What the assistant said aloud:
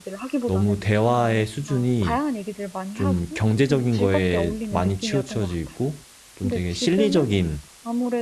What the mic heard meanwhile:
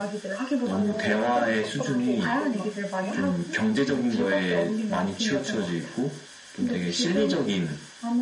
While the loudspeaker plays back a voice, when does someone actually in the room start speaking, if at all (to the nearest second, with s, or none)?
1 s